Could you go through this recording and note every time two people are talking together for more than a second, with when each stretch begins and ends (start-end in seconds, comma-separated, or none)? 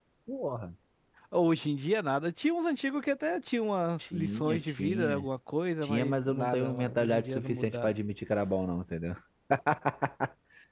4.0-5.2, 5.8-8.0